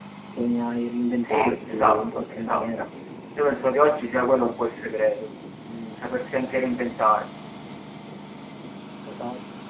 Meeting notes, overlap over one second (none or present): present